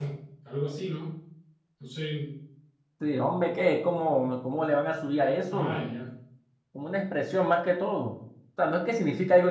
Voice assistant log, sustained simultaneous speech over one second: none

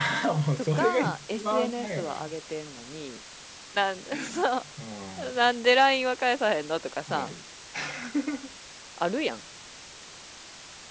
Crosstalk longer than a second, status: present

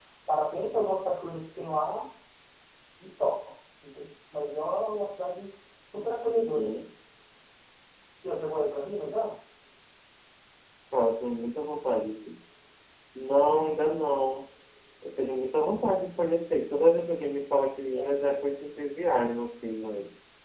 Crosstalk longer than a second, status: none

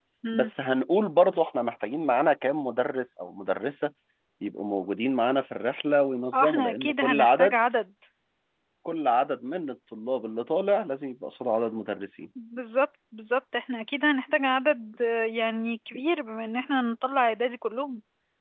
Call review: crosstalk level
present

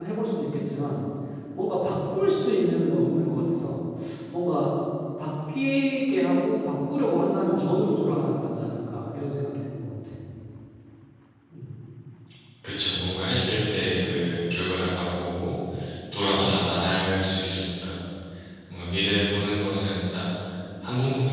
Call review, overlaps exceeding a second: none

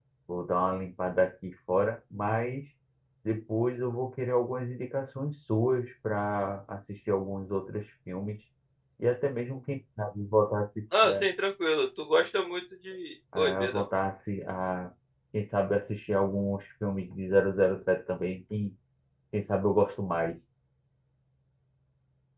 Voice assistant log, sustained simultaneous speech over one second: none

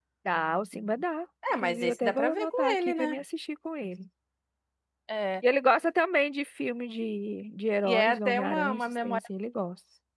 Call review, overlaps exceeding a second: present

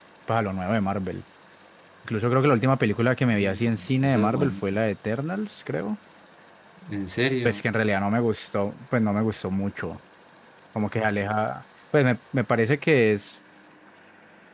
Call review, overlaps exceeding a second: present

